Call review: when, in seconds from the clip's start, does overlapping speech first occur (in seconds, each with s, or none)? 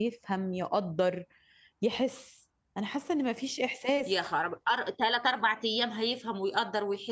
none